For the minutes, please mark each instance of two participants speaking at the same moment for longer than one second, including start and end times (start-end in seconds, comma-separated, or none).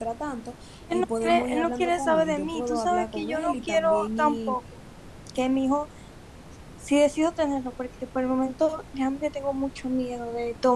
0.9-4.5